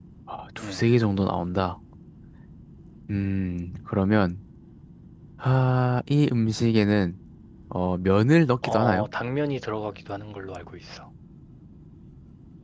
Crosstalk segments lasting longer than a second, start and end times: none

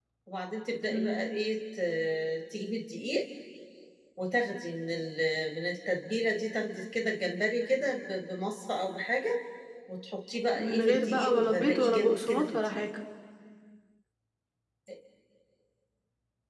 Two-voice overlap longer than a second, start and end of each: 10.6-12.9

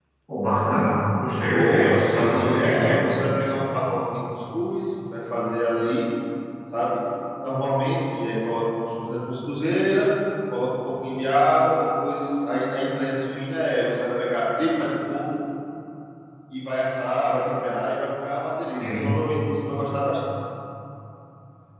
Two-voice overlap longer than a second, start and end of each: 1.5-3.0

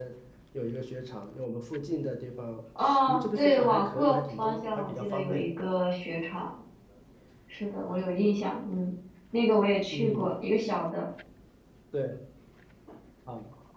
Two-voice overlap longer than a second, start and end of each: 3.1-5.5

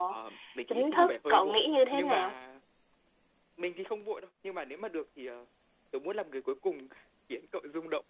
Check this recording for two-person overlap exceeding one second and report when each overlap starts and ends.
0.7-2.4

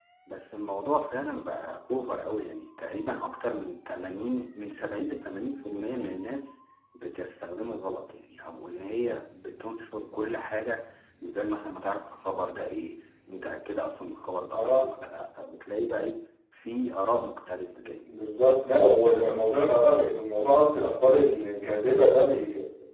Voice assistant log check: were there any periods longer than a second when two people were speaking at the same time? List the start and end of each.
none

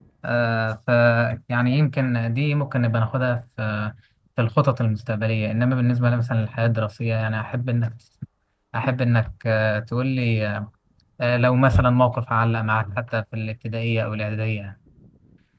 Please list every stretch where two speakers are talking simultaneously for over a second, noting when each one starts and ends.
none

